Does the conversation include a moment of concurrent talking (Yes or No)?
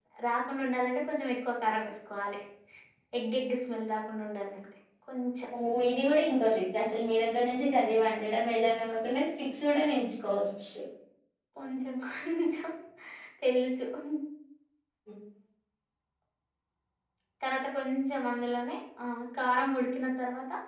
No